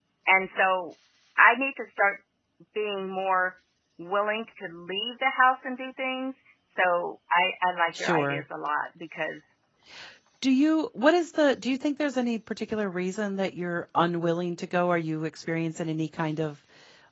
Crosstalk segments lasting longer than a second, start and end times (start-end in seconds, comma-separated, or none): none